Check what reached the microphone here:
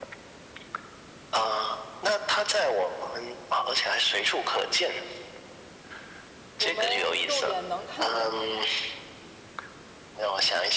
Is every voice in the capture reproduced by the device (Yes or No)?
No